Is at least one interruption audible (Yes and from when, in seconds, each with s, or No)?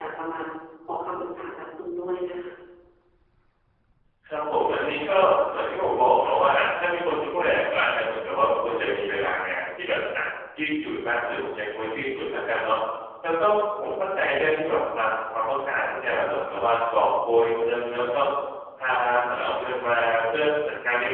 No